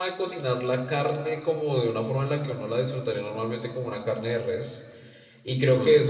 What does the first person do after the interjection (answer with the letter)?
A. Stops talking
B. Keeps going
B